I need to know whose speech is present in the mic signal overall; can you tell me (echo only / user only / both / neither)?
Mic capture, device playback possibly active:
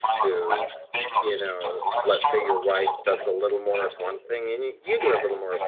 both